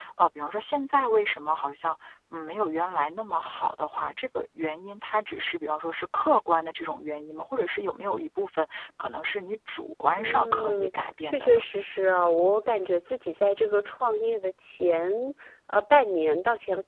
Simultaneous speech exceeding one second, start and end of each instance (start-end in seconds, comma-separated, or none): 10.2-11.6